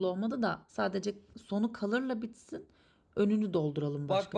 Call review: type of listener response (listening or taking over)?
taking over